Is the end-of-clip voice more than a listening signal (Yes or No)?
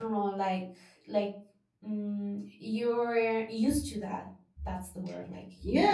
Yes